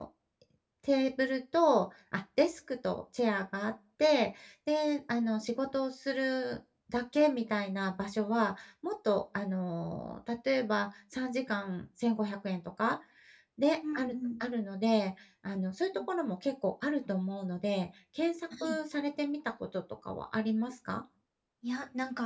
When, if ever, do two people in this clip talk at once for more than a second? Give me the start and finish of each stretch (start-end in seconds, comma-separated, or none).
none